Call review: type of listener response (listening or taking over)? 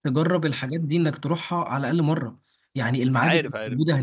listening